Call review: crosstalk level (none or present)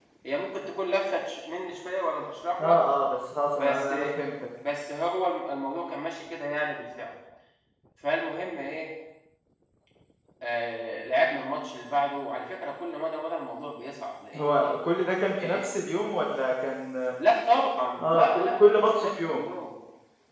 present